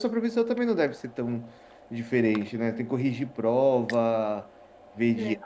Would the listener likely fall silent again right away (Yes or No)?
Yes